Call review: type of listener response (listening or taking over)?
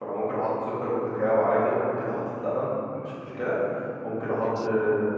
listening